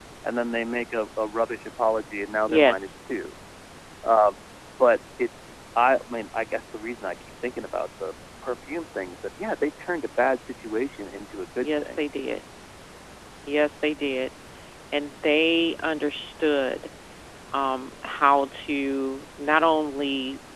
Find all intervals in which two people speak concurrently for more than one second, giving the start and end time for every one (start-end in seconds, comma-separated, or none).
none